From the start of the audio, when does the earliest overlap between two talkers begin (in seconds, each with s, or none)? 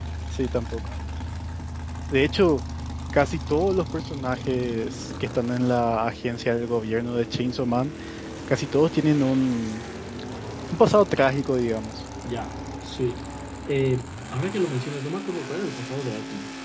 none